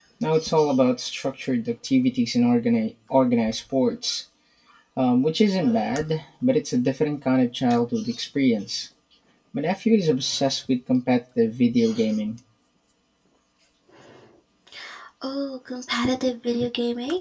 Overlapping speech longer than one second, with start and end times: none

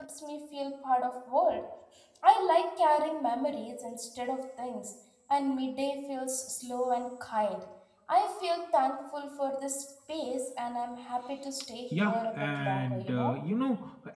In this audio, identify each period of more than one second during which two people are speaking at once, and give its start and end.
11.9-13.4

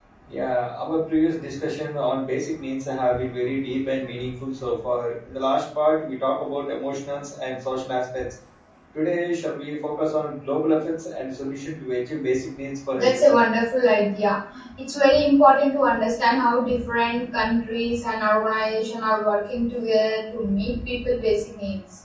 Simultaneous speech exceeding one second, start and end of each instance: none

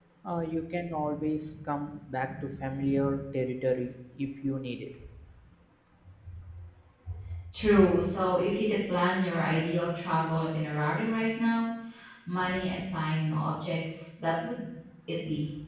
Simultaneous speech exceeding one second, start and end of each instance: none

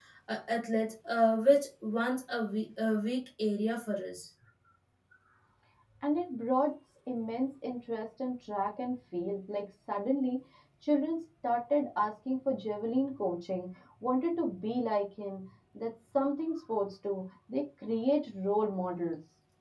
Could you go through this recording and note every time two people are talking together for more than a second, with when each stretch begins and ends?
none

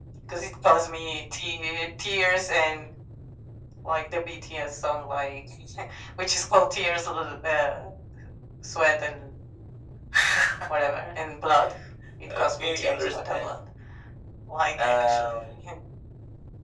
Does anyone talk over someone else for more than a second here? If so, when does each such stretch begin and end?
12.3-13.6

